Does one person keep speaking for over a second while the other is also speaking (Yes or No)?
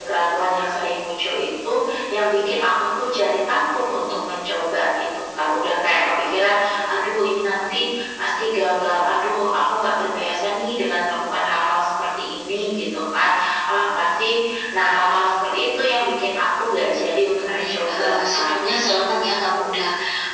Yes